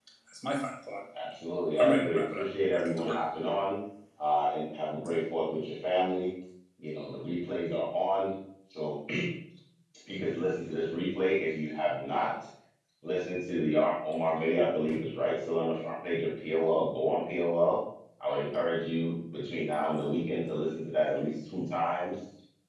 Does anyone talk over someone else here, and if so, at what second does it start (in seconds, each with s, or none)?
1.8 s